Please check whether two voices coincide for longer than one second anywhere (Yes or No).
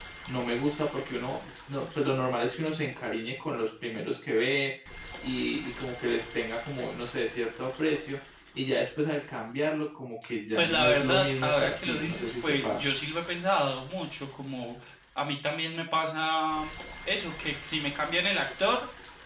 Yes